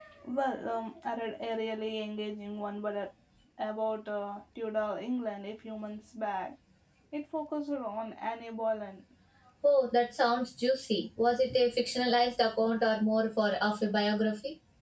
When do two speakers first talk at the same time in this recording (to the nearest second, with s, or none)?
none